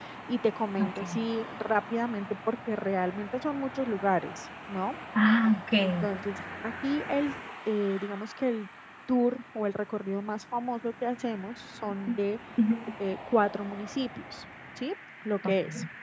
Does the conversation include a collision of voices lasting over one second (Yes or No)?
No